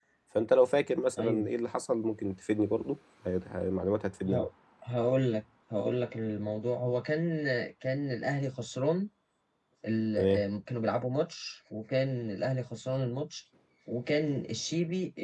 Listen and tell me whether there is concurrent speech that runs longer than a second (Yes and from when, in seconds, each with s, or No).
No